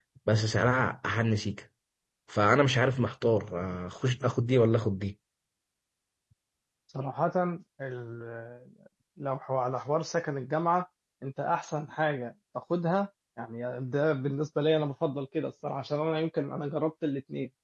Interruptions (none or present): none